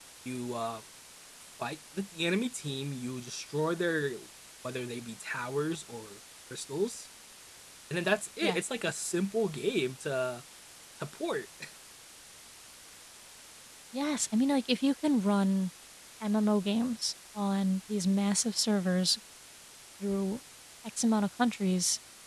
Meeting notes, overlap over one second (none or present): none